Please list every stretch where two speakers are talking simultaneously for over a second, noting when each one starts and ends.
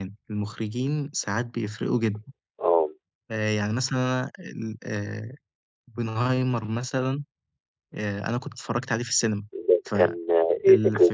none

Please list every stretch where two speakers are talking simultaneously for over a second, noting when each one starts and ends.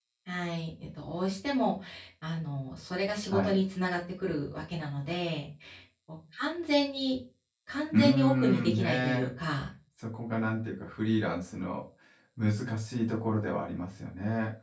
7.9-9.2

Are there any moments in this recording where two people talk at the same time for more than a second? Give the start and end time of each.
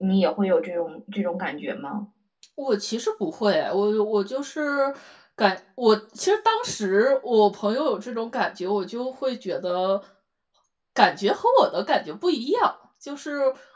none

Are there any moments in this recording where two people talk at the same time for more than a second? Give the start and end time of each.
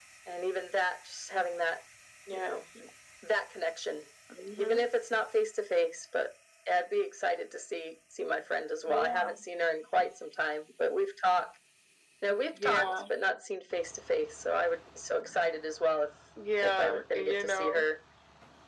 16.6-17.9

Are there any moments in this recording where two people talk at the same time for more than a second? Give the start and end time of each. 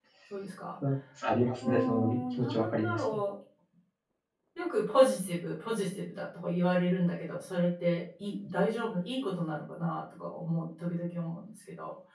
1.6-3.0

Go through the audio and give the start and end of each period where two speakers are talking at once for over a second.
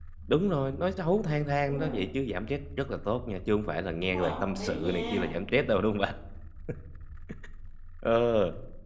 4.0-5.3

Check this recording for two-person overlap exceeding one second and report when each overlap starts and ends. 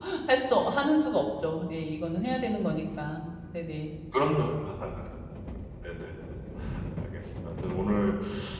none

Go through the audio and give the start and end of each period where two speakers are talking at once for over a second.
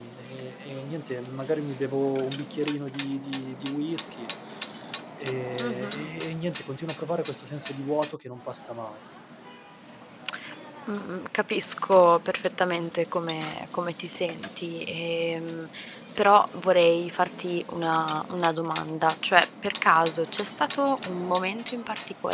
none

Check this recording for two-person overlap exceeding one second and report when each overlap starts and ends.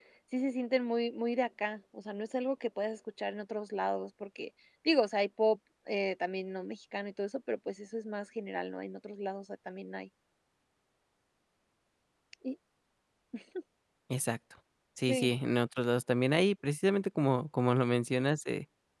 none

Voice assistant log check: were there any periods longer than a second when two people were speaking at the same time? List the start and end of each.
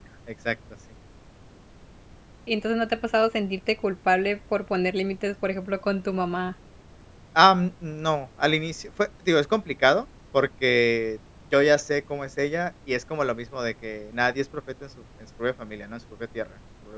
none

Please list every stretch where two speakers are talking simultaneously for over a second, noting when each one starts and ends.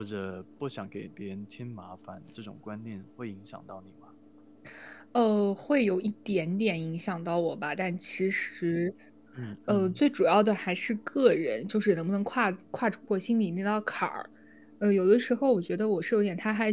none

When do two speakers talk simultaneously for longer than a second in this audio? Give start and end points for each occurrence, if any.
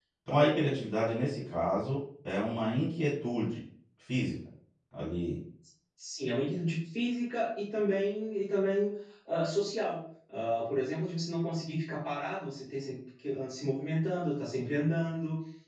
none

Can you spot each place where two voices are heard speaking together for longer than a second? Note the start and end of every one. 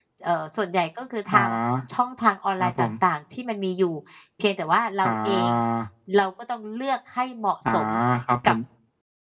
none

